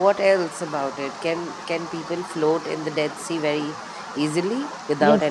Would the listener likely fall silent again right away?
No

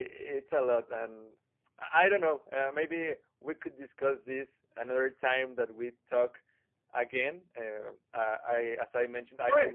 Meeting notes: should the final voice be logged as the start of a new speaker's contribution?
No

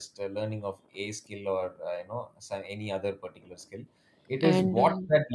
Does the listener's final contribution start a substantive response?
No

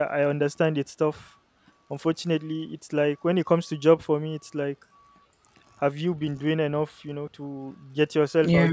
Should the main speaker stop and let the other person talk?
No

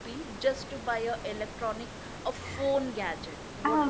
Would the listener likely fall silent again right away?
No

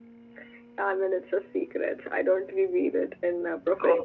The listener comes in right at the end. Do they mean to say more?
Yes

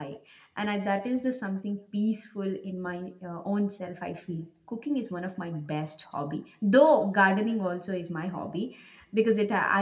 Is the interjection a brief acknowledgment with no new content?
Yes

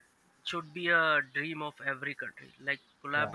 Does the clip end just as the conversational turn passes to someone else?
No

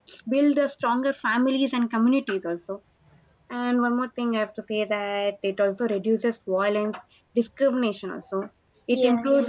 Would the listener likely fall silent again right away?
Yes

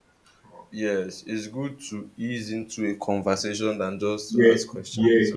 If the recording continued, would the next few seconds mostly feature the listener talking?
Yes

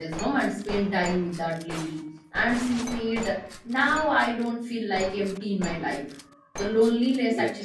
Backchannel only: Yes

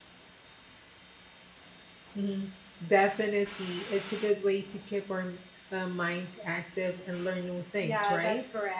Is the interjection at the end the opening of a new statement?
Yes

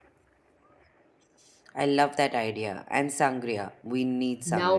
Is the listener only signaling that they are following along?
No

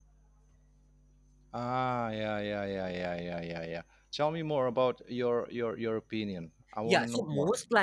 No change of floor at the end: No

